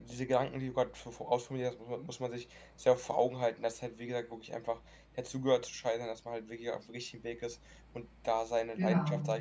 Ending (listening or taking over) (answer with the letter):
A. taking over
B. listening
B